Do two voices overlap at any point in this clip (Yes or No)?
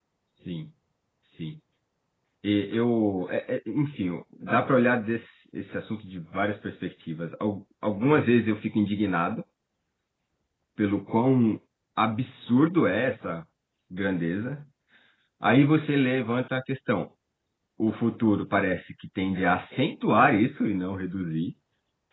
No